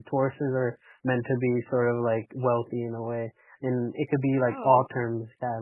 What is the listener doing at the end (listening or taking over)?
listening